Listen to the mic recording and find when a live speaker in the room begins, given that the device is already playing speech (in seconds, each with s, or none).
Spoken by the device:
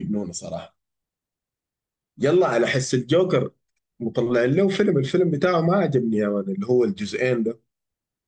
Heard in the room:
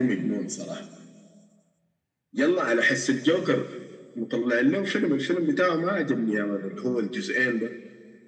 none